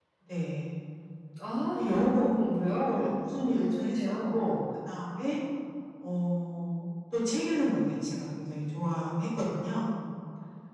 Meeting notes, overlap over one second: present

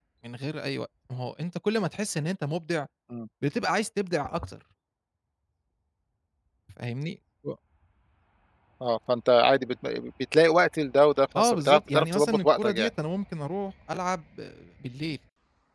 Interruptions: present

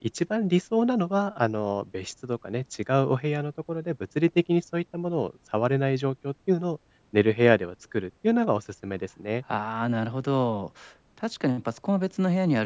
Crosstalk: none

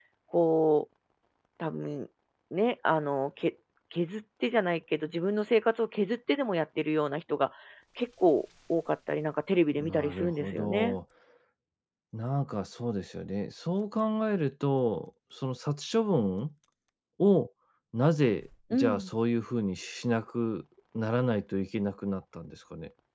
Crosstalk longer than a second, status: present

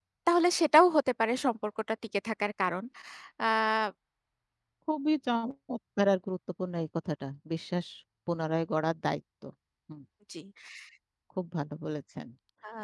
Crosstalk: none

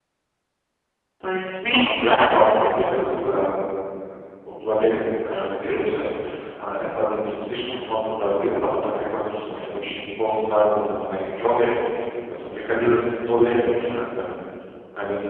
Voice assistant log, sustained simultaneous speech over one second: present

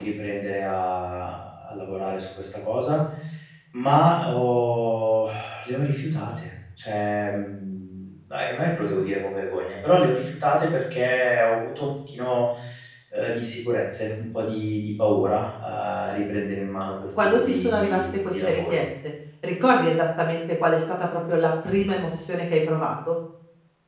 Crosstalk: present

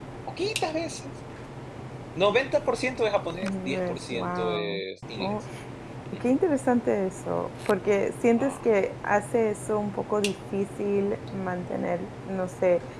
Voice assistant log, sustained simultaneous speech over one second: present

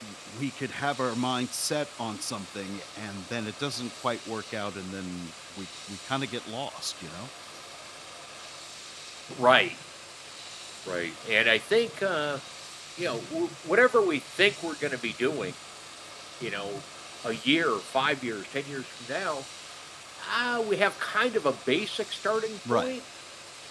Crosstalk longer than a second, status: none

